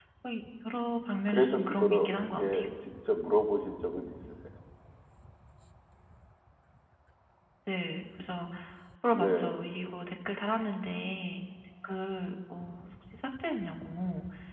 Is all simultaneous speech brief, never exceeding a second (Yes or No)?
No